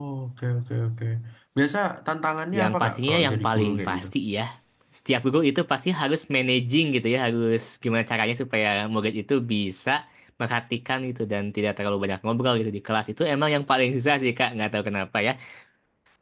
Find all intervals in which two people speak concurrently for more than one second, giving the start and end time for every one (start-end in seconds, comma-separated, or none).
2.6-4.1